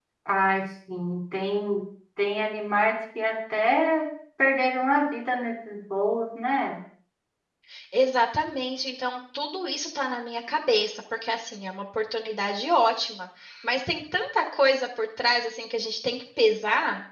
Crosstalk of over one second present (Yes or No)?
No